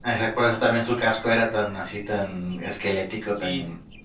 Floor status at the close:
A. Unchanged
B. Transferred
B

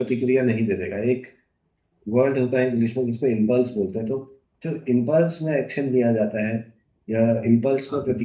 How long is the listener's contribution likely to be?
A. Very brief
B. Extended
A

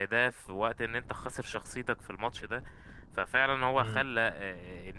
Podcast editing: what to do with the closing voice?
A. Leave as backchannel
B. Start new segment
A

